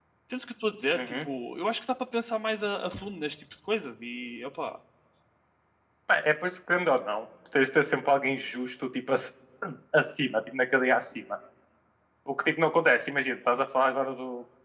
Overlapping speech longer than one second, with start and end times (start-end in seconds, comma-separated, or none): none